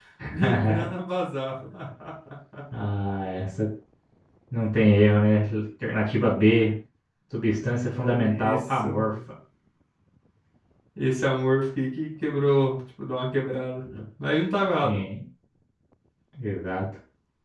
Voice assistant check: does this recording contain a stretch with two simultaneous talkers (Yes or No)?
Yes